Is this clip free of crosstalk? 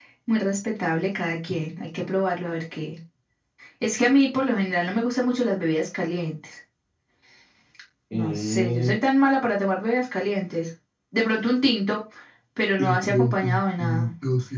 No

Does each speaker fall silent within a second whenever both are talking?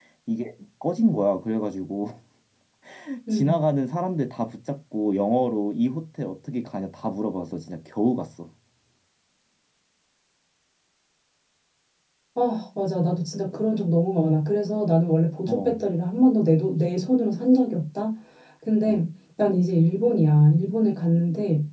Yes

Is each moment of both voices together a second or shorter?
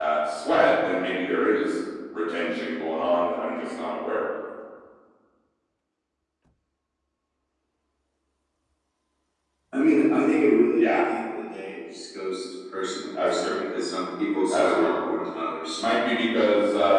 Yes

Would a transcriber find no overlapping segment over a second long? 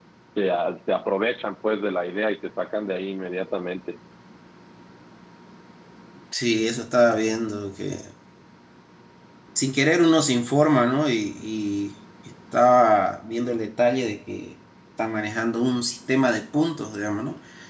Yes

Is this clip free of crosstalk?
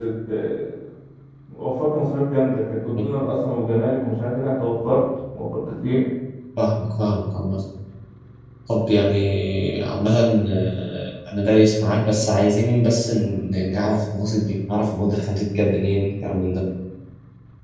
Yes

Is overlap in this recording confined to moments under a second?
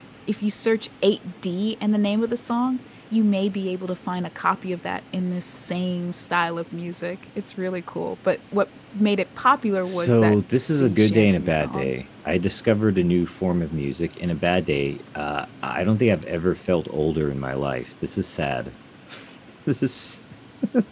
No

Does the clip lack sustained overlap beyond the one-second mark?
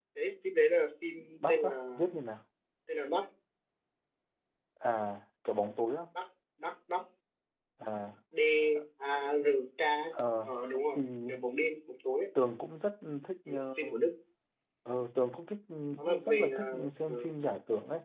No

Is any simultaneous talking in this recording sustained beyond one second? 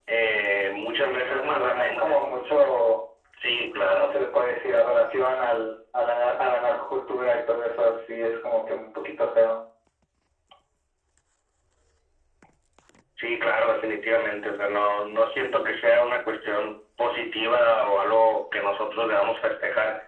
Yes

